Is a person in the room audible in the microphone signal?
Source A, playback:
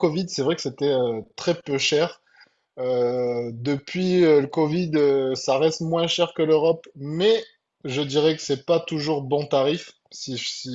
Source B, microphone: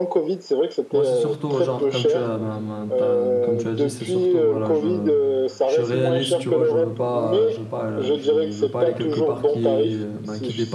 Yes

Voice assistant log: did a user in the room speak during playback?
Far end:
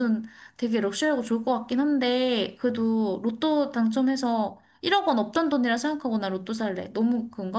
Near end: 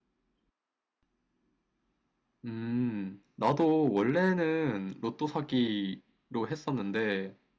Yes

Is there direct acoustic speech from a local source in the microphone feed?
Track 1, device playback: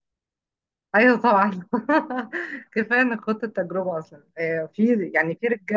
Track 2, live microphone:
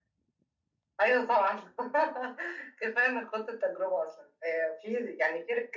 No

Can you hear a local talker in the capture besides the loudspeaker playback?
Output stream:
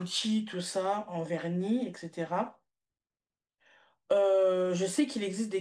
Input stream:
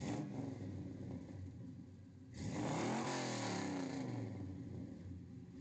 No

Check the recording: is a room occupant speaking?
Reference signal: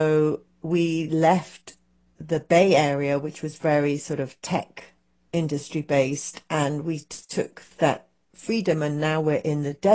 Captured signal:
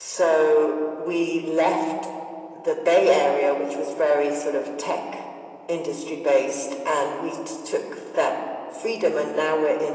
No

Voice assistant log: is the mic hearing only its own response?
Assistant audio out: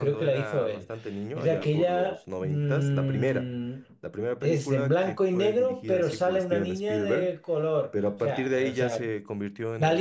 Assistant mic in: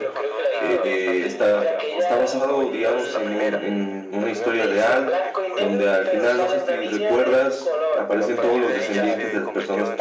No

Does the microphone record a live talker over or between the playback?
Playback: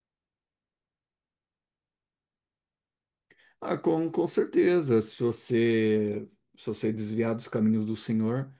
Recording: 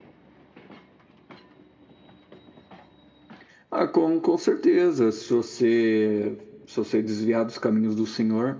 No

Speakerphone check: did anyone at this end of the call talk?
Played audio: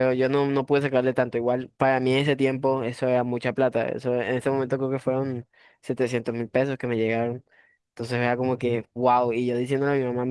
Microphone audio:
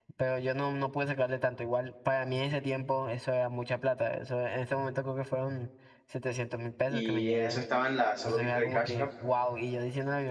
Yes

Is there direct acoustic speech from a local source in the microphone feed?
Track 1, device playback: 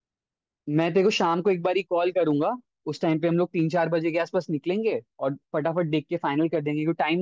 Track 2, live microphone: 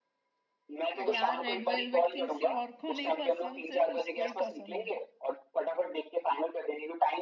Yes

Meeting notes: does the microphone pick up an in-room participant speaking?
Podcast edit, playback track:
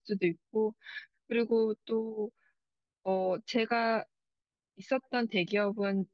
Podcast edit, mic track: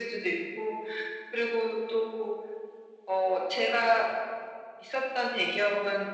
No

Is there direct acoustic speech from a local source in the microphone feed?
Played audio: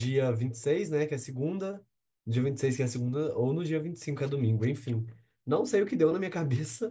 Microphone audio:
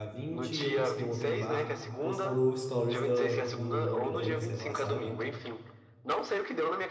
Yes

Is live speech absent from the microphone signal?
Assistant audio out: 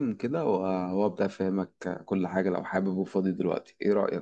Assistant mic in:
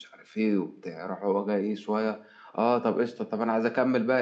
No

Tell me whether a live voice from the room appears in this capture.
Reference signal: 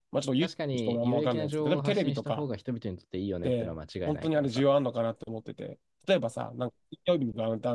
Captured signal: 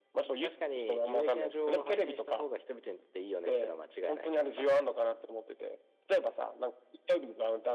No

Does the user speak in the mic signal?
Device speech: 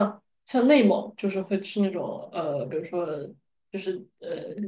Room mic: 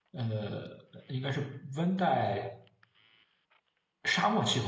Yes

